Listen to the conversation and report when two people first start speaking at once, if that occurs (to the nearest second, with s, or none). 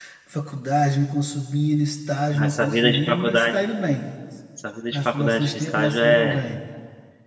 2 s